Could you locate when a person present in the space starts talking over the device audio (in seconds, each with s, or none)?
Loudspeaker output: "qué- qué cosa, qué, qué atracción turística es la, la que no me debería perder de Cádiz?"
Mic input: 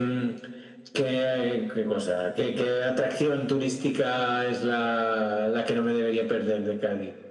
none